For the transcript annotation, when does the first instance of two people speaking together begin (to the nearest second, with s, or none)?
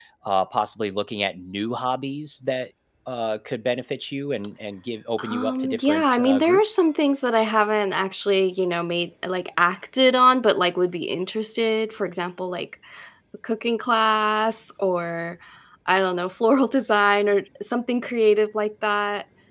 5 s